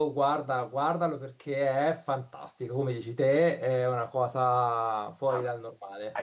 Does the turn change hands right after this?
Yes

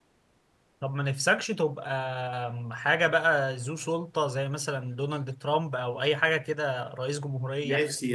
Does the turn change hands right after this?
Yes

